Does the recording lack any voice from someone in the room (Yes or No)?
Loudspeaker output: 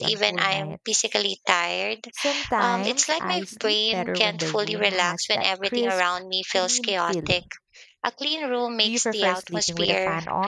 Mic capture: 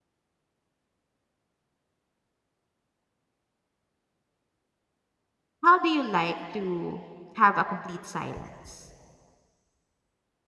No